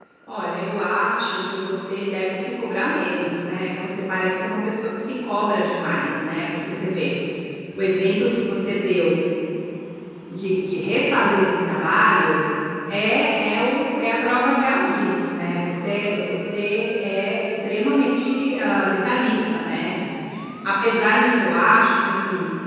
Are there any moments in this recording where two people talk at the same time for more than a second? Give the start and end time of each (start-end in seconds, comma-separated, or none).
none